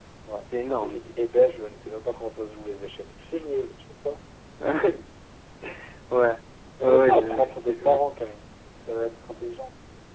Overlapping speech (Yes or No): Yes